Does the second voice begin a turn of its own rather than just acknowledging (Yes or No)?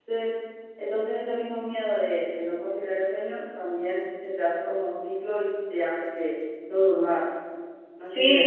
Yes